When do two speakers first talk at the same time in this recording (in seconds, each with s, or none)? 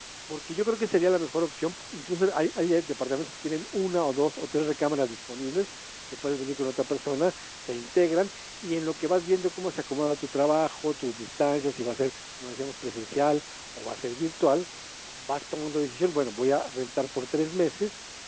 none